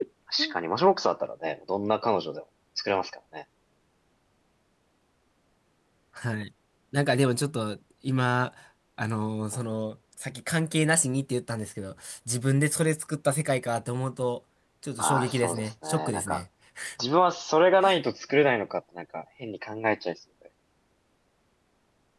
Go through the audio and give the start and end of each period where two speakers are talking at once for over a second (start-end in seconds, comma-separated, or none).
15.0-16.4